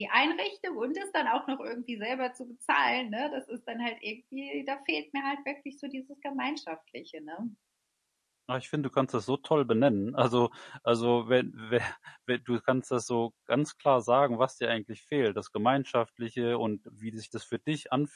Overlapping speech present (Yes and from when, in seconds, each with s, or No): No